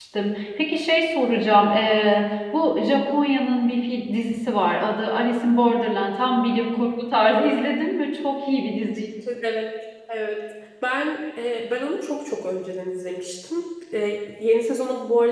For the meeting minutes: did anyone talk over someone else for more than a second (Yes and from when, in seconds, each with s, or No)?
No